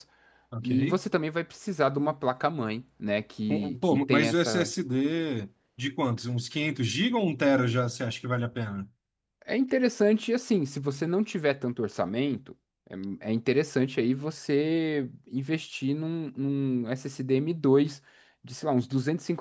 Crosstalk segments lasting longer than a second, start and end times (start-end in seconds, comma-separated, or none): 3.5-4.7